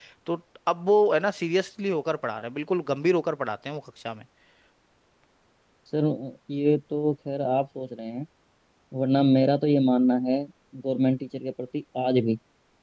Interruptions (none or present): none